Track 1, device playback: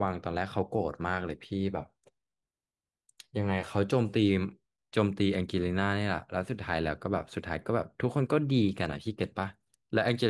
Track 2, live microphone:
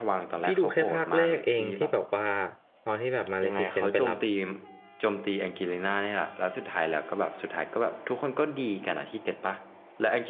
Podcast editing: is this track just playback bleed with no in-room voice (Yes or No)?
No